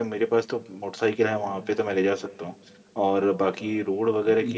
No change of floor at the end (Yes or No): Yes